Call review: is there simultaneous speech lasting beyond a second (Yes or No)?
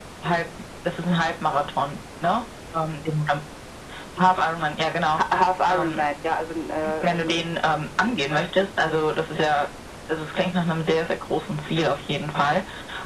No